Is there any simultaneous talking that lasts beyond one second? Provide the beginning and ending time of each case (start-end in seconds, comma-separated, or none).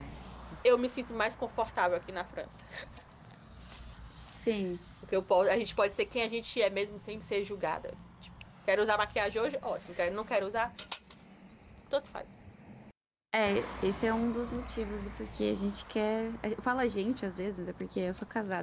none